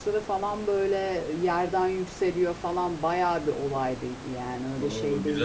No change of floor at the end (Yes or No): No